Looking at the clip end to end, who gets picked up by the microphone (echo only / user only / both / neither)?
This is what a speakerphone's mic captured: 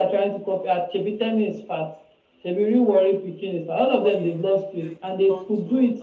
both